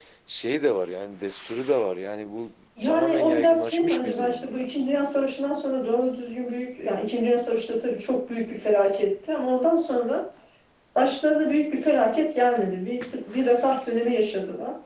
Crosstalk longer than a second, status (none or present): present